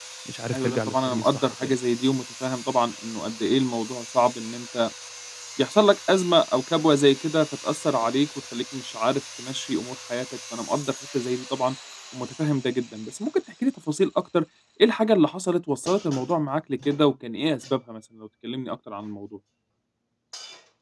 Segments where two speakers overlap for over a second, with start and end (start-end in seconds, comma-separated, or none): 0.5-1.8